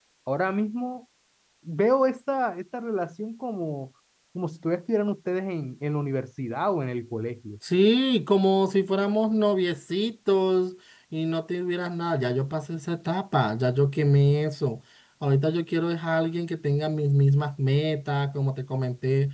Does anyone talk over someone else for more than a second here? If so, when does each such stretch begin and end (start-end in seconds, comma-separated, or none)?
none